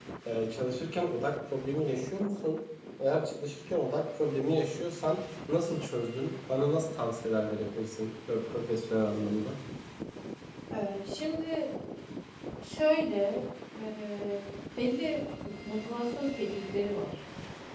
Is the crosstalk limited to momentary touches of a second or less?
Yes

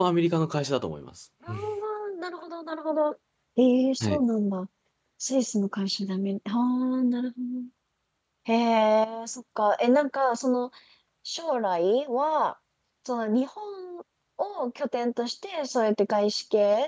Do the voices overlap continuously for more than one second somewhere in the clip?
No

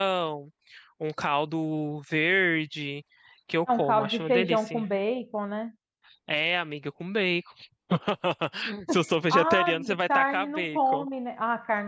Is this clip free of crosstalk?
No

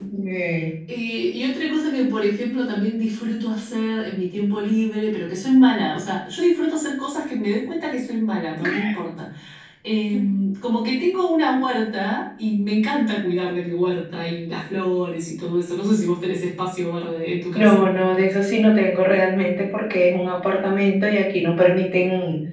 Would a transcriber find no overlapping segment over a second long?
Yes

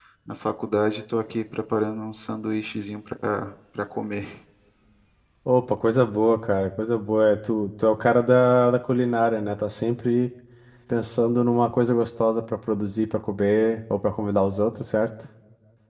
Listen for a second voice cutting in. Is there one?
No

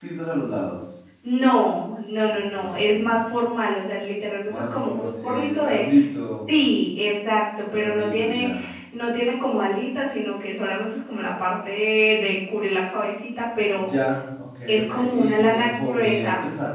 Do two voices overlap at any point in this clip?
Yes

